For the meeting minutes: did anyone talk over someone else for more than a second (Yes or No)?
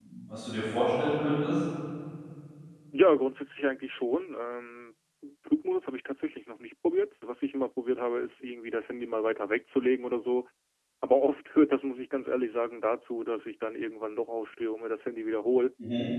No